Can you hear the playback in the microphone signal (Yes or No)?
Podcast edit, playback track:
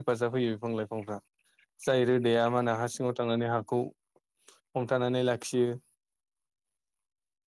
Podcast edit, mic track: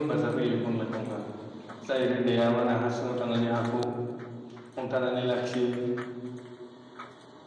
Yes